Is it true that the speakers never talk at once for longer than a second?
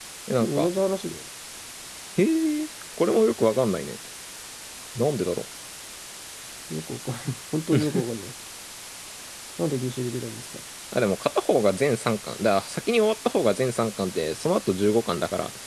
Yes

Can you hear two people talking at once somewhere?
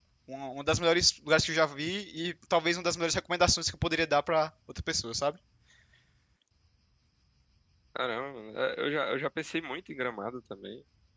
No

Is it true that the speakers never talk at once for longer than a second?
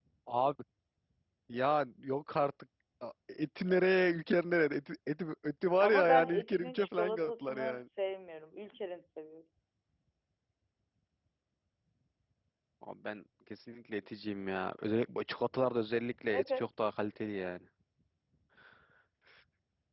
No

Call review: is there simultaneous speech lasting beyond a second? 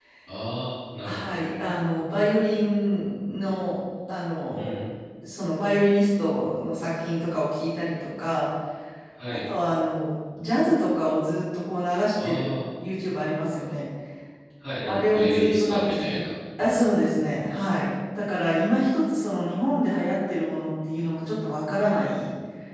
Yes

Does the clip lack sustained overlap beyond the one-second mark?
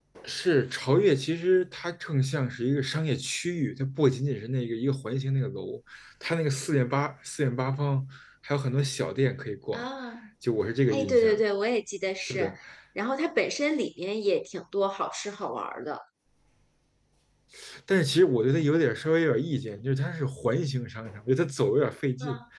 Yes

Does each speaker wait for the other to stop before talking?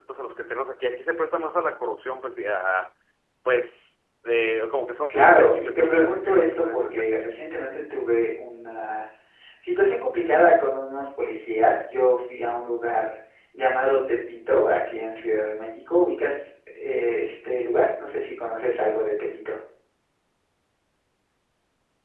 No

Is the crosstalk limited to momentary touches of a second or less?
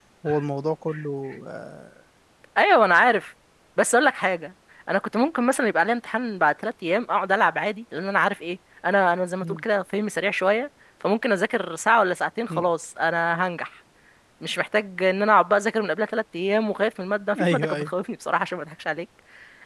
Yes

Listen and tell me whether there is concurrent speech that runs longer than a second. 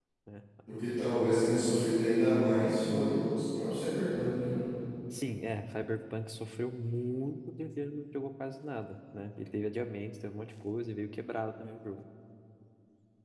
No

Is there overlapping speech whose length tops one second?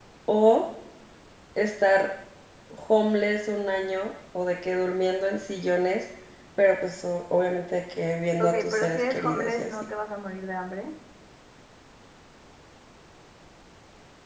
Yes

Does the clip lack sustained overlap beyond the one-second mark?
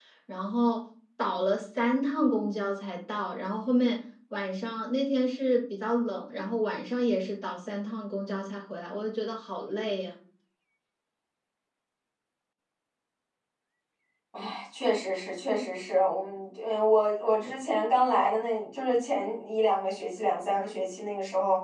Yes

